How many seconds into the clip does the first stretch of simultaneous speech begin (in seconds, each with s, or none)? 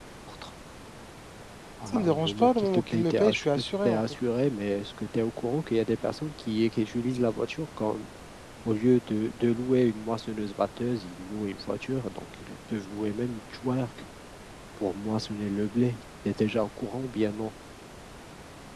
1.9 s